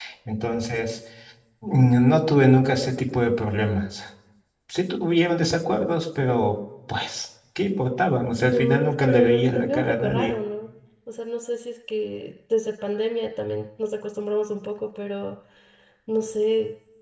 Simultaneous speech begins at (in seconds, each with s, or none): 8.5 s